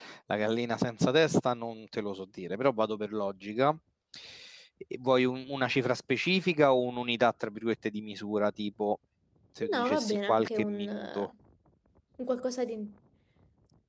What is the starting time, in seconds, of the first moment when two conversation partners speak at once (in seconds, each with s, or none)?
9.7 s